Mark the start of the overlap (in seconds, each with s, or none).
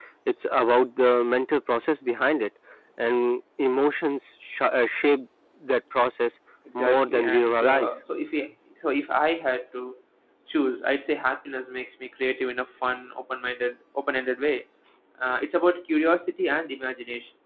6.7 s